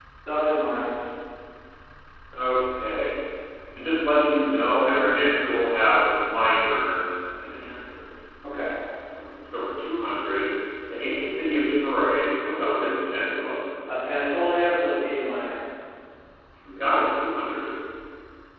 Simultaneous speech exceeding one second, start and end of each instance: none

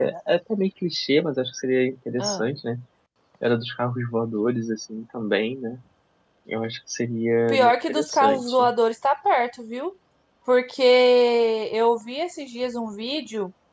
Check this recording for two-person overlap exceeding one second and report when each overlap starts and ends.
7.5-8.7

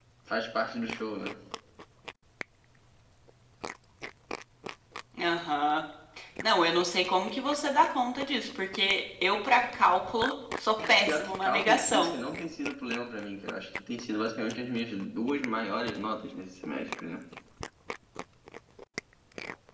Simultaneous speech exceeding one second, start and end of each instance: 10.9-12.1

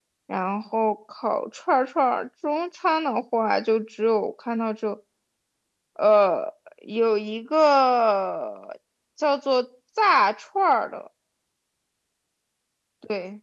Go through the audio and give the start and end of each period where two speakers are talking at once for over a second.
none

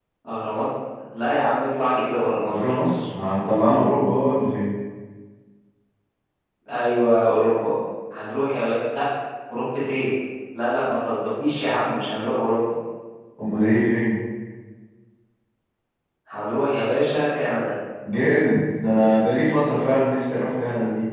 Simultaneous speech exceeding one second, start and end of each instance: none

